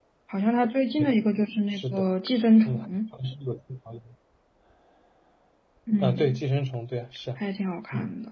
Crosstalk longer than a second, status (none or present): none